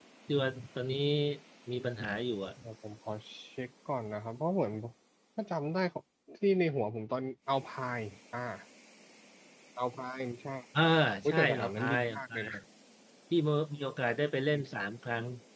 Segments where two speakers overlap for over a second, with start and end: 11.3-12.5

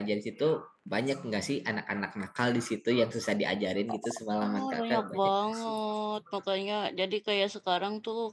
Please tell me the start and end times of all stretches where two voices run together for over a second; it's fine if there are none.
4.4-5.7

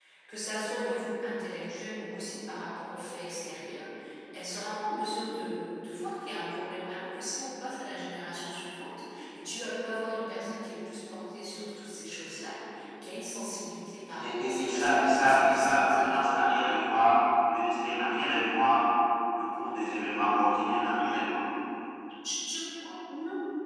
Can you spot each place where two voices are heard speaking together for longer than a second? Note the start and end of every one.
14.2-16.4

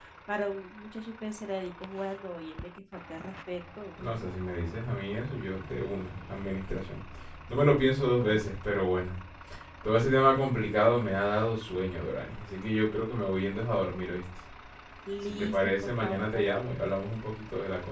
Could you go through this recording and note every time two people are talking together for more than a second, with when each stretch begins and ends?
15.3-16.6

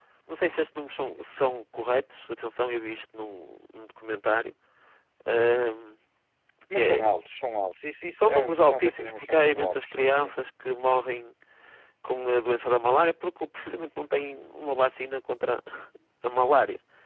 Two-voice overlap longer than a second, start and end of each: 8.2-10.5

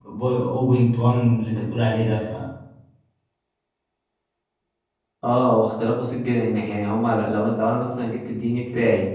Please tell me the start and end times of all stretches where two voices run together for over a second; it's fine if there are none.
none

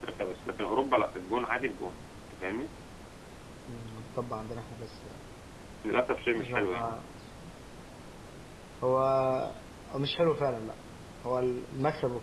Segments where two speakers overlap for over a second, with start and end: none

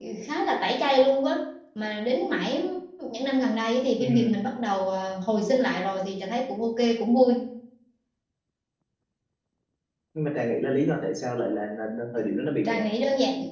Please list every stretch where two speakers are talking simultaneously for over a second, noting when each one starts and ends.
none

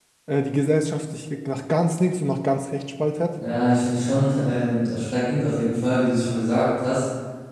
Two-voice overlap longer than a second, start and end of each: none

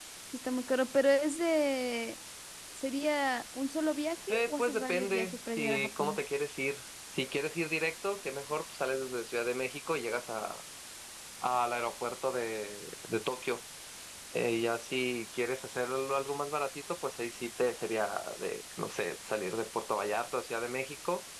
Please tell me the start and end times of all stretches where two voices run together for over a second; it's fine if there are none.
4.3-6.2

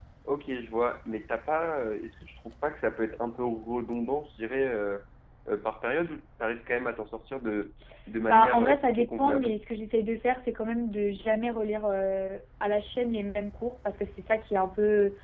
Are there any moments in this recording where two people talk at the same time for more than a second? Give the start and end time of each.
8.2-9.5

